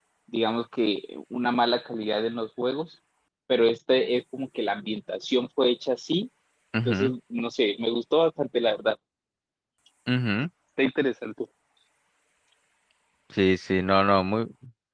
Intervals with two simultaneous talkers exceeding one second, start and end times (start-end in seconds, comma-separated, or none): none